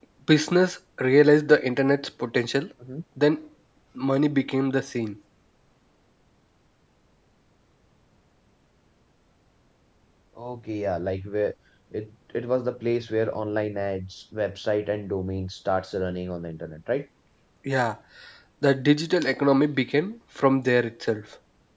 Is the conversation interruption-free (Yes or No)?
Yes